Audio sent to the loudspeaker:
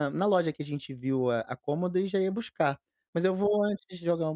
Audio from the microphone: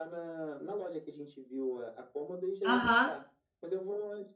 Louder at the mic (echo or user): user